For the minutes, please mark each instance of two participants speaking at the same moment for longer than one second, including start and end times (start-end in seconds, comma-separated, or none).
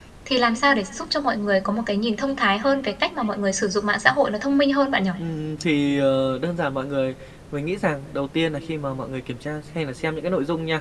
none